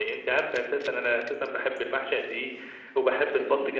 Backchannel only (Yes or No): Yes